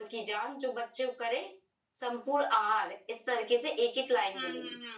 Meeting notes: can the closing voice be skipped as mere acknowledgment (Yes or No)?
No